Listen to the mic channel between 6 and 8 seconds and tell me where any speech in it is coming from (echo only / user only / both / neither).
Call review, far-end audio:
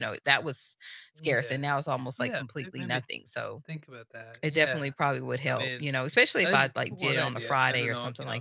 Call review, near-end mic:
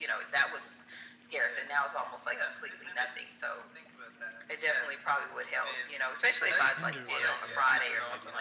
both